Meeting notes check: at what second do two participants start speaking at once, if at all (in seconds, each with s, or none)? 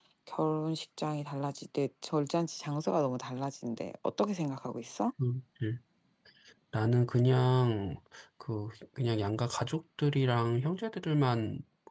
none